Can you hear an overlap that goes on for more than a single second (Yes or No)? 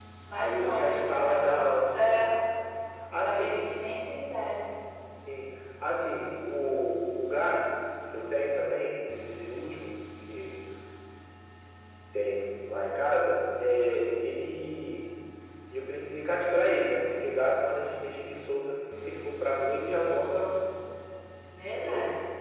Yes